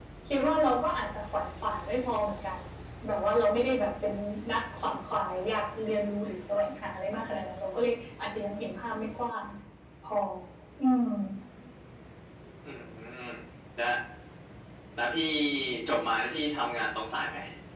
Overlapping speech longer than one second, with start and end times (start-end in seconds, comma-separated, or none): none